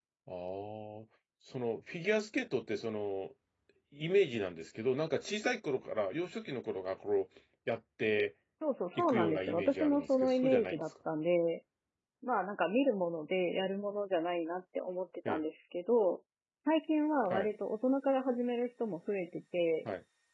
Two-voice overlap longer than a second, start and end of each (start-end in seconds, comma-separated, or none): 9.0-10.8